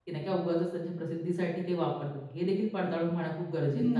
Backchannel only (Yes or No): No